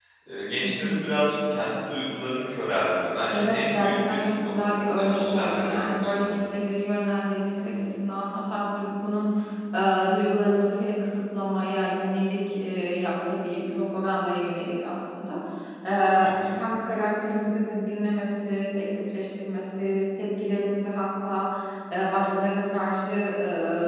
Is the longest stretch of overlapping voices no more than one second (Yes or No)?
No